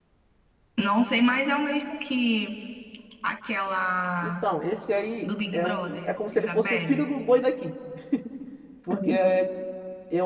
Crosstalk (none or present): present